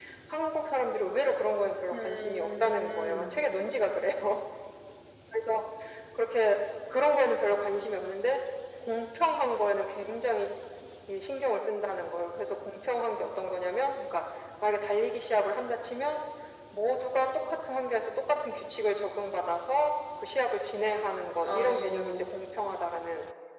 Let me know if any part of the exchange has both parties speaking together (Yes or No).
Yes